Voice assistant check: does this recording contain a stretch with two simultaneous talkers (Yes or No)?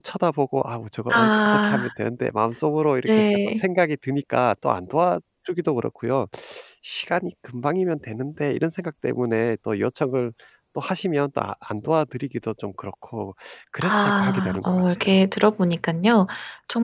Yes